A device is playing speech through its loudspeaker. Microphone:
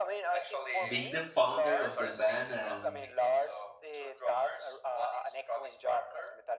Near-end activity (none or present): present